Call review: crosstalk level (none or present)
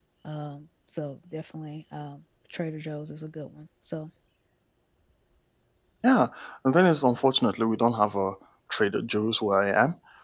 none